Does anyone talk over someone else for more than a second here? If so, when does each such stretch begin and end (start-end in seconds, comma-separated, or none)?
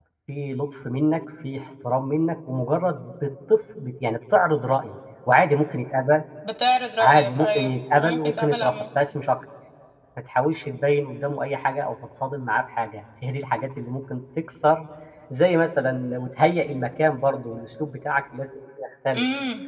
7.0-8.8